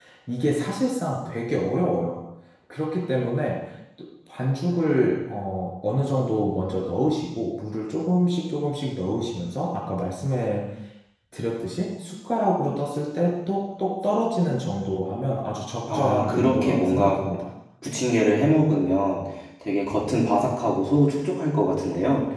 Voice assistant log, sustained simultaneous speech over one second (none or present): present